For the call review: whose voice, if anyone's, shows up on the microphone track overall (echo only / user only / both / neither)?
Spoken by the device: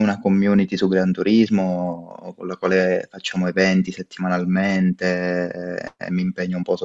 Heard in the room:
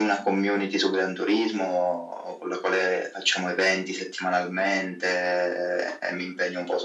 echo only